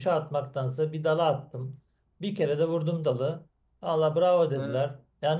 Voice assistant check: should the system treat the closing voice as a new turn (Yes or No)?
No